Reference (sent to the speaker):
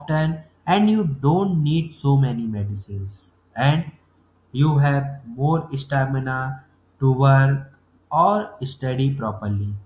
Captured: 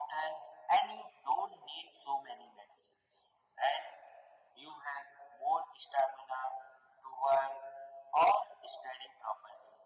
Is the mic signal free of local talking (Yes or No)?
Yes